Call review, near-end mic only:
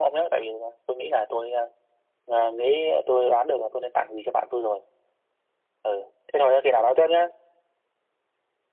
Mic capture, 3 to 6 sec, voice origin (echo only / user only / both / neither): echo only